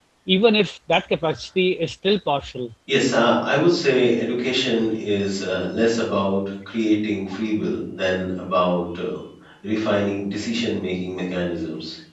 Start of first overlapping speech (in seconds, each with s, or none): none